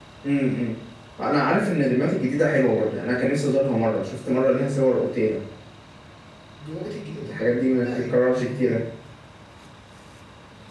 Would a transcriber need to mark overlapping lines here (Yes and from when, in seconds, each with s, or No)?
Yes, from 7.2 s